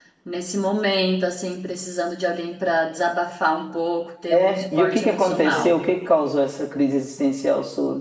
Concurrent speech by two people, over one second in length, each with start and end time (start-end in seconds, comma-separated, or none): 4.3-5.7